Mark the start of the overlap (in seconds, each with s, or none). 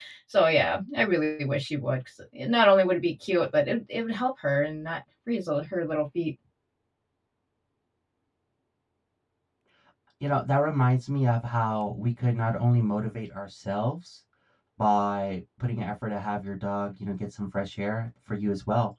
none